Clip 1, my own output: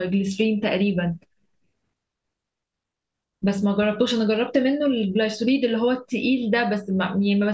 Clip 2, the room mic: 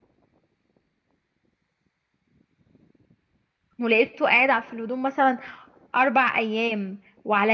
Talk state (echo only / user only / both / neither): user only